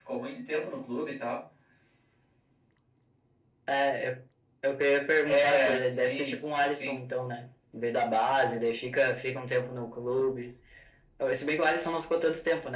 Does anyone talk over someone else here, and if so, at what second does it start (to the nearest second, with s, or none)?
5 s